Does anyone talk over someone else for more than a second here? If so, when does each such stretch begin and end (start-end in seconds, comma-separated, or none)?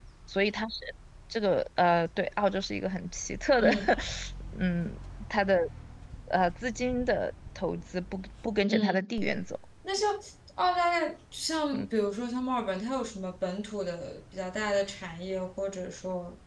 none